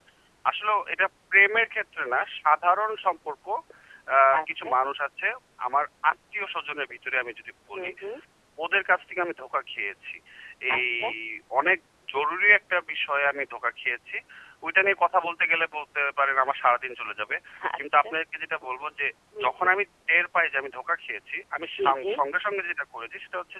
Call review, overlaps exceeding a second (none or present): none